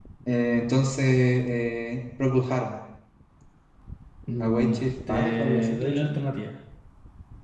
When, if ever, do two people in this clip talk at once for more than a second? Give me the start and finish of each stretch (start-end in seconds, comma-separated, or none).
4.4-6.2